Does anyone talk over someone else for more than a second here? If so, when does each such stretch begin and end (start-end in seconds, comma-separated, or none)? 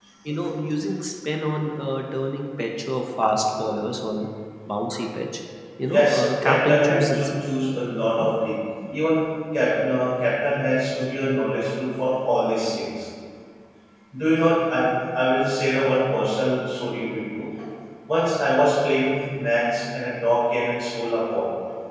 5.9-7.3